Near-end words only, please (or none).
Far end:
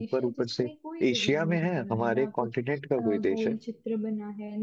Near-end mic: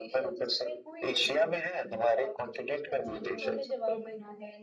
सोचिए या मैं जवाब दे दूं